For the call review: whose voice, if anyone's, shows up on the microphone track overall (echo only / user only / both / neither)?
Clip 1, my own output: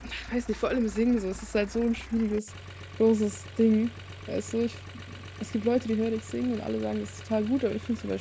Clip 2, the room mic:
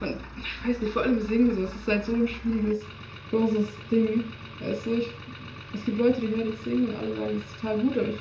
echo only